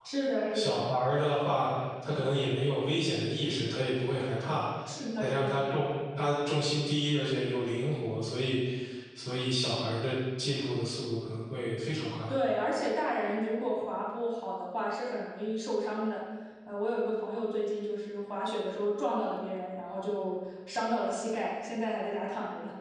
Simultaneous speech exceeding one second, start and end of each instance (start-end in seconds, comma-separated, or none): none